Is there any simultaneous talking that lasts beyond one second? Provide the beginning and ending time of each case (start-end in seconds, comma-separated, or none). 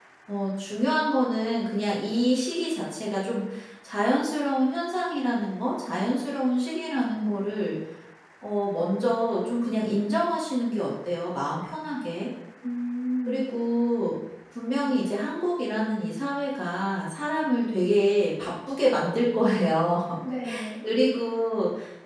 none